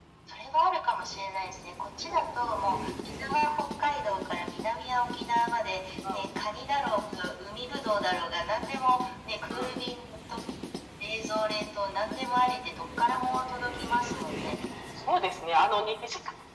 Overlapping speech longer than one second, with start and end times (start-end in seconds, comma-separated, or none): none